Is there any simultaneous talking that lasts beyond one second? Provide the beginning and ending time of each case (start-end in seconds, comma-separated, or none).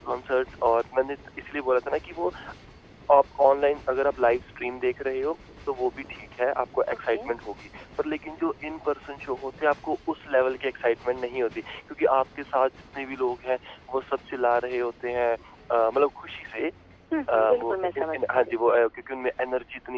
17.3-18.6